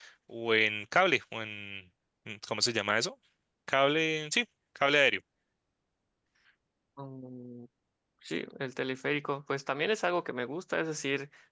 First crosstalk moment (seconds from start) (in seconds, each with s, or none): none